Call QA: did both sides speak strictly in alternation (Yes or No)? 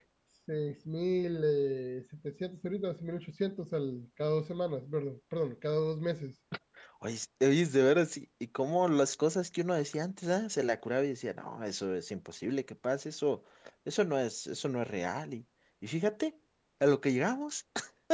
Yes